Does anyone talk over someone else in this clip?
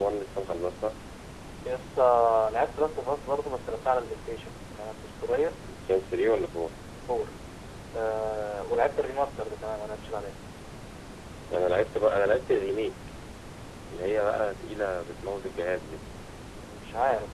No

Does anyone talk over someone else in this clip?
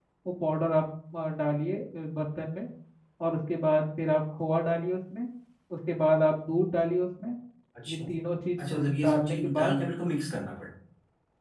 Yes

